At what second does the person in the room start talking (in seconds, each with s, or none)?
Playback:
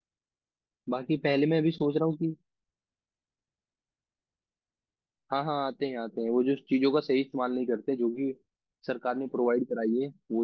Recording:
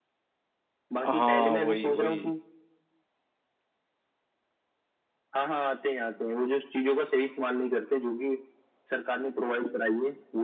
1.1 s